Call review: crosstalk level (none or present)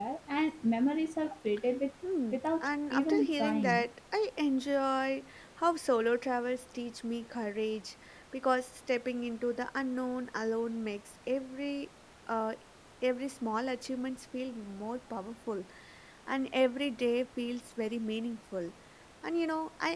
present